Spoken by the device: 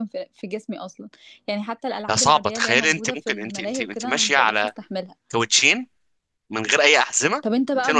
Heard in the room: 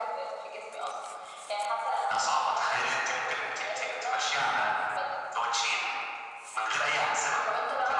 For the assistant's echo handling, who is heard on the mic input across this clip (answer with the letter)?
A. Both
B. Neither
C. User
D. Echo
D